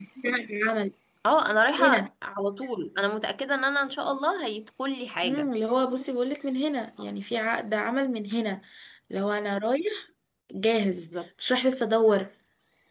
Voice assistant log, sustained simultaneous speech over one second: none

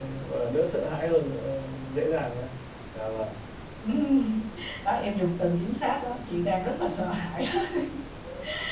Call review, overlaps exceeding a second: none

